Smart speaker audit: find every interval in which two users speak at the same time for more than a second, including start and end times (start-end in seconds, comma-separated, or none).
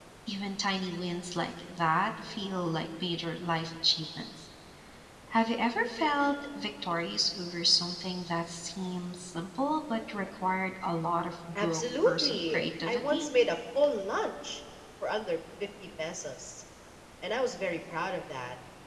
11.6-13.3